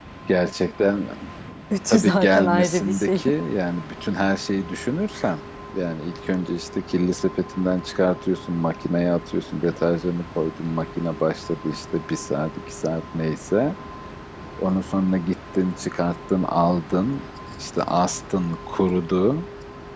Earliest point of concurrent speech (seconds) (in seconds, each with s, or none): 1.9 s